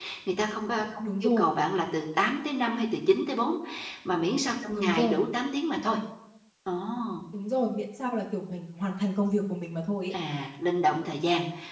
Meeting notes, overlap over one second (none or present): none